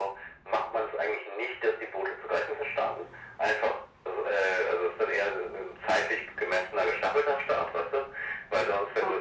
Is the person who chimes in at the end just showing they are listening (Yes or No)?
Yes